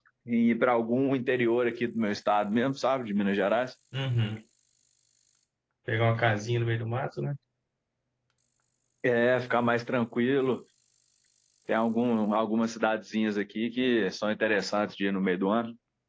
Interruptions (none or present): none